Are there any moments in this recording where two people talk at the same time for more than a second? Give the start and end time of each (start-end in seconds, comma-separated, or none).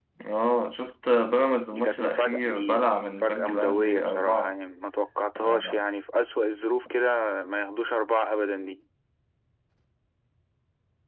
1.7-4.6